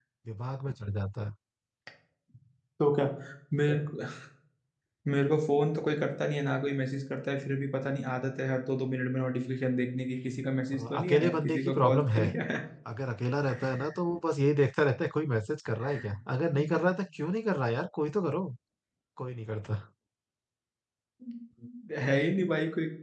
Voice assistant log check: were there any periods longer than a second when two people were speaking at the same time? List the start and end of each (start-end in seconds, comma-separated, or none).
10.7-12.3